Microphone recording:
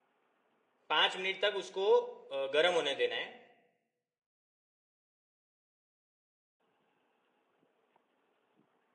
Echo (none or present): none